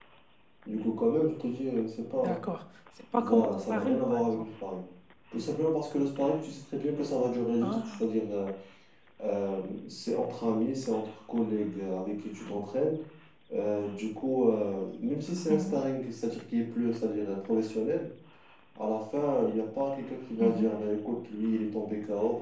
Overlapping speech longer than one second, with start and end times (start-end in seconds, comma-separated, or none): 3.2-4.5